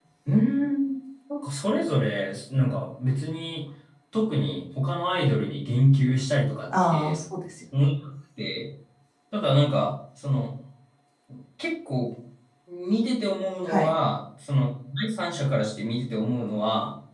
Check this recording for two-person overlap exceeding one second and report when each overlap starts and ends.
none

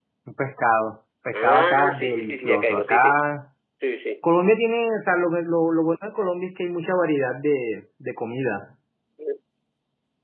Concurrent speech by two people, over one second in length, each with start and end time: 1.3-3.2

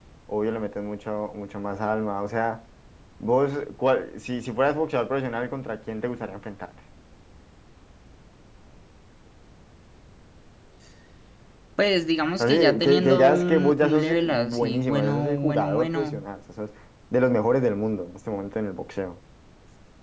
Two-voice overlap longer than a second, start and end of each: 12.4-16.2

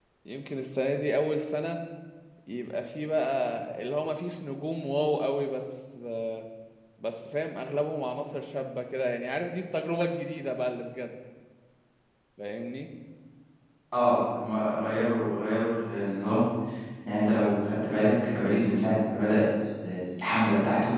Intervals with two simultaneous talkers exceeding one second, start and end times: none

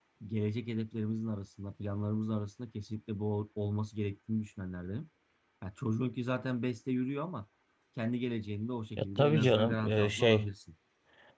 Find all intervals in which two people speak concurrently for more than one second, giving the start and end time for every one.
9.0-10.5

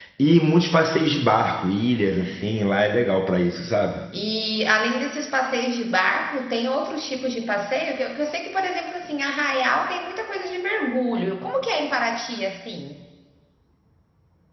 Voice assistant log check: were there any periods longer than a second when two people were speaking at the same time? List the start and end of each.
none

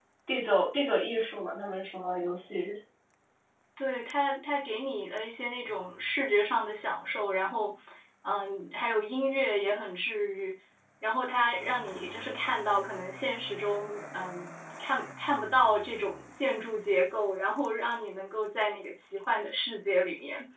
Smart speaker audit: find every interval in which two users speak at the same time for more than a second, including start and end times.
none

